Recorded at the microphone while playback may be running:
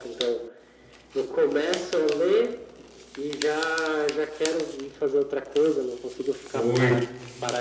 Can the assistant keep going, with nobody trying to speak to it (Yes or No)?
No